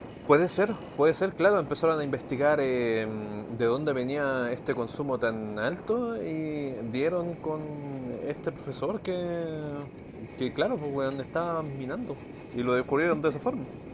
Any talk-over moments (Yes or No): No